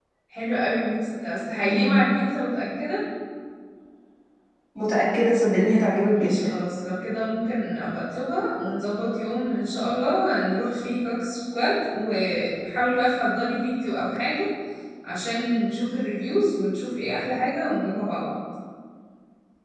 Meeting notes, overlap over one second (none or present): none